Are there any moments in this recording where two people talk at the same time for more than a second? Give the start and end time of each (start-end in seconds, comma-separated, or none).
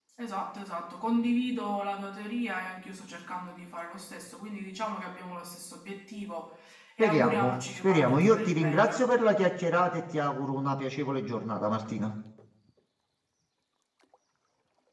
7.0-9.1